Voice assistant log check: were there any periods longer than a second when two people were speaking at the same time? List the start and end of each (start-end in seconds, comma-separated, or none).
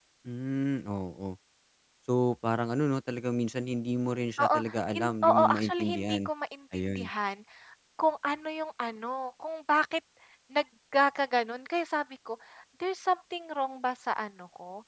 4.9-6.2